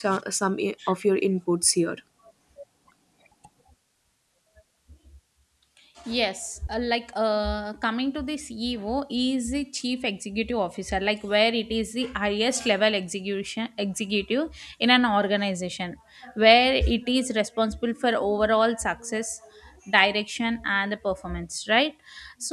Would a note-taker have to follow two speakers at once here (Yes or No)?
No